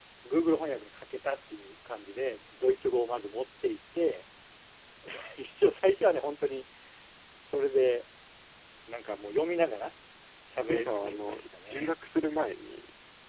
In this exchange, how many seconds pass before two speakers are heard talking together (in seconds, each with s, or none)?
10.7 s